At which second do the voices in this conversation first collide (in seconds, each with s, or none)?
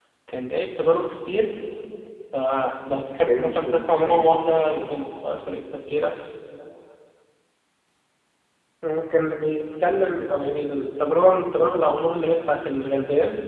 2.9 s